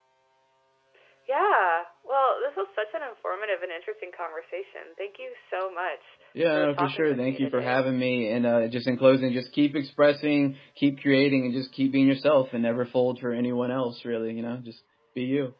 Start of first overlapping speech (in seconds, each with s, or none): 6.3 s